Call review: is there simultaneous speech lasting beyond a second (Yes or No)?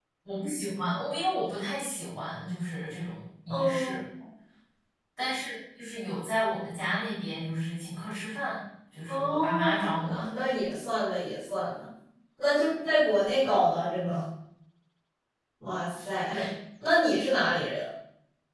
Yes